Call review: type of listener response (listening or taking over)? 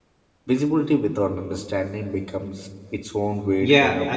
taking over